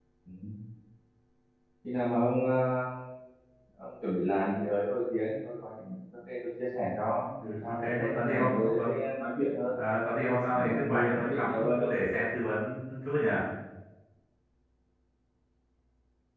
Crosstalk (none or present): present